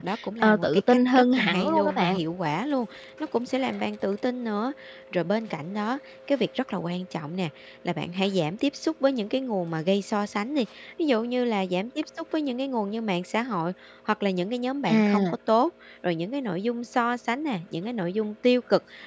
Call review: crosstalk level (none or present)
present